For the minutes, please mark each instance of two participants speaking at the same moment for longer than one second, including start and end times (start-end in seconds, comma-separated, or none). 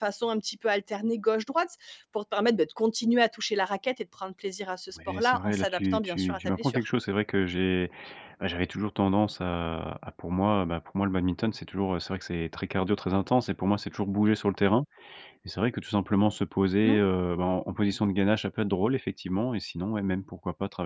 5.1-6.8